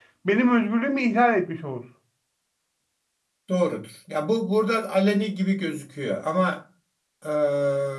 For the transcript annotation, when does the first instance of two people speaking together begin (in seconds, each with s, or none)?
none